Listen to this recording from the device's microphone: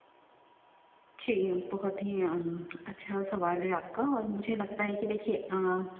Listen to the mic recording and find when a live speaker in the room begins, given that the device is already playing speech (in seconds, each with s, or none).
1.2 s